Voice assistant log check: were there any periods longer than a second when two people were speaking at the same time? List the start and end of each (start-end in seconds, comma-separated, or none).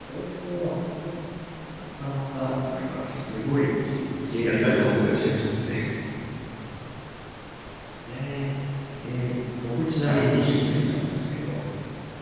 4.4-5.7